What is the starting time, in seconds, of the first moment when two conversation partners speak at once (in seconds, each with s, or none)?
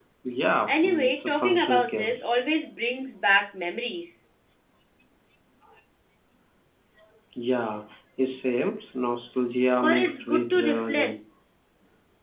0.7 s